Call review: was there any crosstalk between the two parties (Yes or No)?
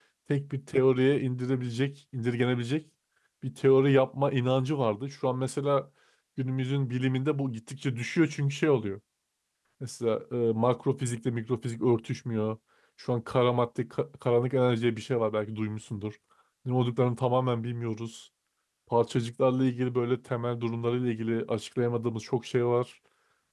No